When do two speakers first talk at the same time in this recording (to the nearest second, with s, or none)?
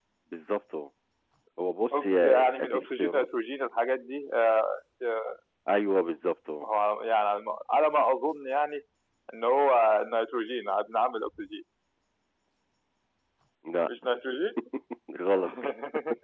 2 s